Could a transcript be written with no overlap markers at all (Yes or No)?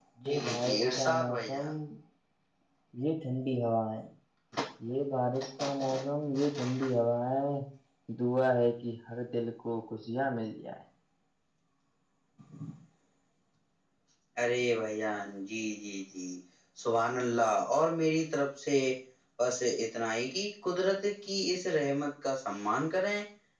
No